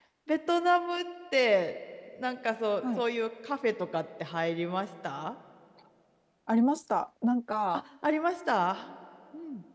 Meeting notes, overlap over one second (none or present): none